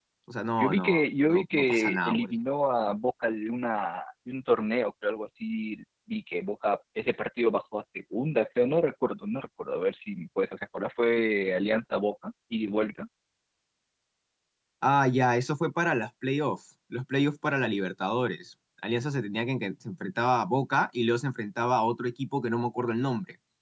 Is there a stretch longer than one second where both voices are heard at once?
Yes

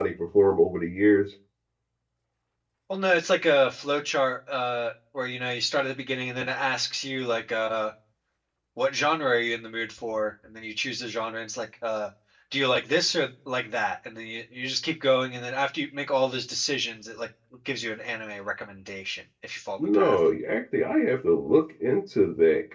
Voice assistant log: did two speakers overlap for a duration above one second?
No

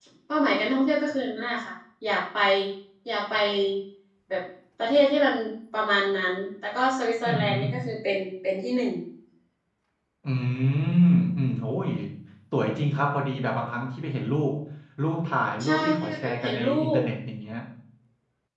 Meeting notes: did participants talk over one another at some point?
Yes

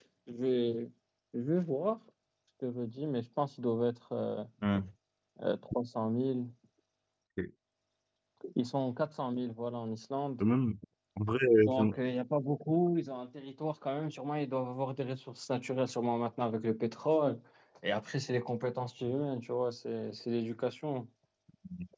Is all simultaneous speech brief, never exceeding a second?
Yes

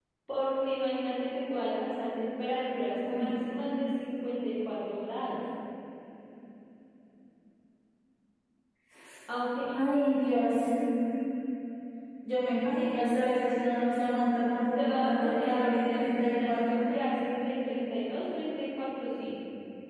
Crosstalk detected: Yes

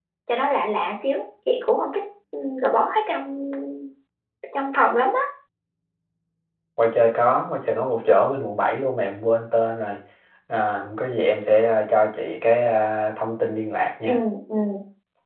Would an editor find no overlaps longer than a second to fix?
Yes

